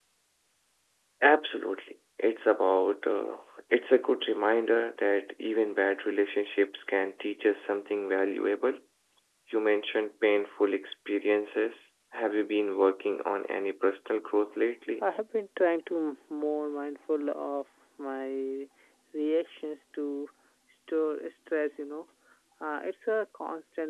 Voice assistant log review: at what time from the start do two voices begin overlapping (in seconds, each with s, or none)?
none